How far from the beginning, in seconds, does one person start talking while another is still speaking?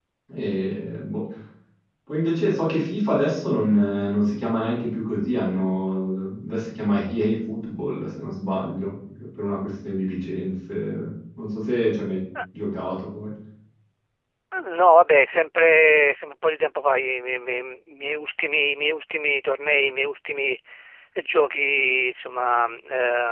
none

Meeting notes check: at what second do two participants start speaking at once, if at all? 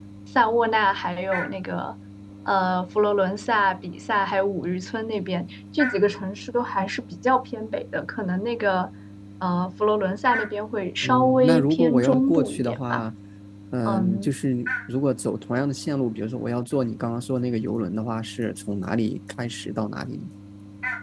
11.0 s

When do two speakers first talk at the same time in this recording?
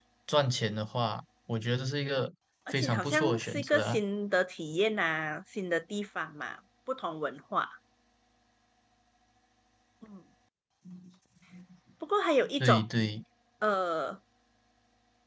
2.7 s

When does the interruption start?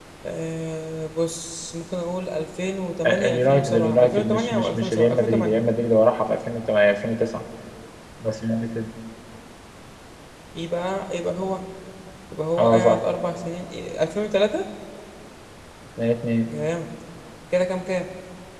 3.0 s

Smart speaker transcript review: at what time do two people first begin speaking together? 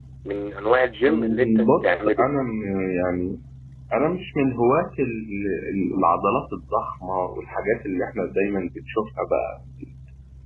1.0 s

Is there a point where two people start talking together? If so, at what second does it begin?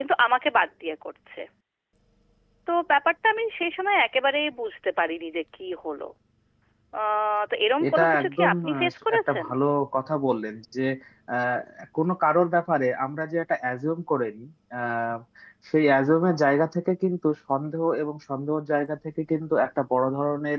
7.8 s

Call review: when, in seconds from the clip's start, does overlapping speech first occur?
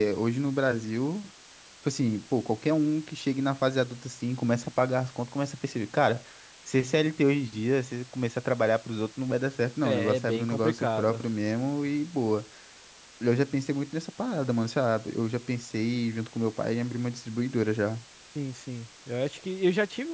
9.8 s

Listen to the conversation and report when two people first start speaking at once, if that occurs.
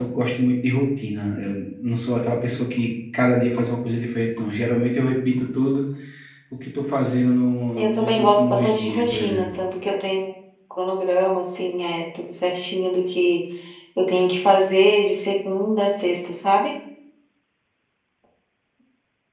7.8 s

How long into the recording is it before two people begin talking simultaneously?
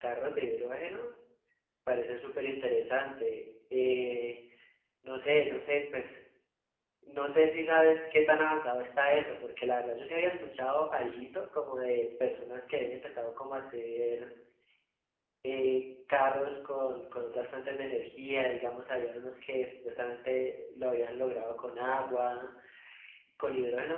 none

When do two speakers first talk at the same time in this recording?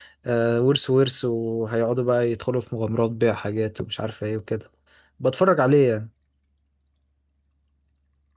none

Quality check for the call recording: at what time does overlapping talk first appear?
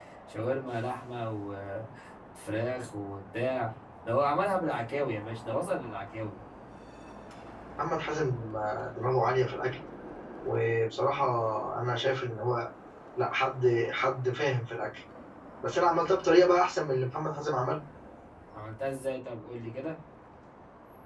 none

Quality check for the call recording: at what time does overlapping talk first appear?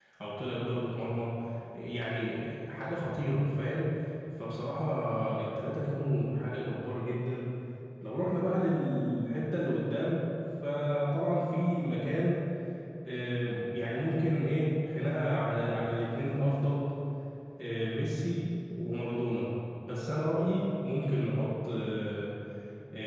none

